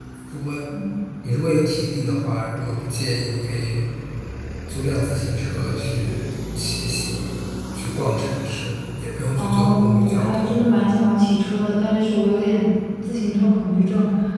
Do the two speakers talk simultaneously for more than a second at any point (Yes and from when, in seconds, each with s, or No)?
Yes, from 9.4 s